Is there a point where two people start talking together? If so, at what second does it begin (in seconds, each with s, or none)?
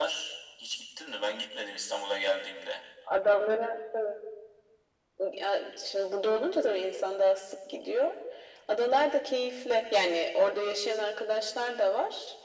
none